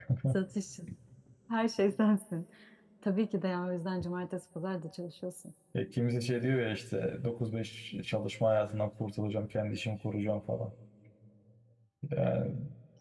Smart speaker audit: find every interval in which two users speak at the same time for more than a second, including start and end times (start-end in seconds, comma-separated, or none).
none